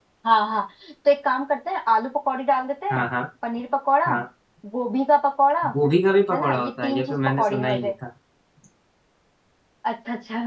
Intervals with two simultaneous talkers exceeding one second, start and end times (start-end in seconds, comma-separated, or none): 6.3-7.9